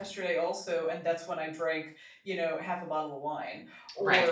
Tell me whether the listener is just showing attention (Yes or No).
Yes